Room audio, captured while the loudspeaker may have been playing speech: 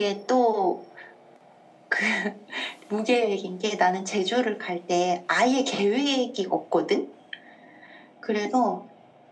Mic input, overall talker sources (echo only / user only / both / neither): echo only